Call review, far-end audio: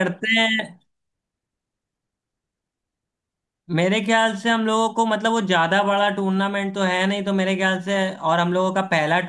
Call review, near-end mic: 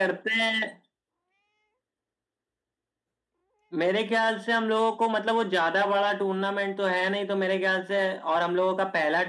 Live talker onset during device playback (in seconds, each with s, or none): none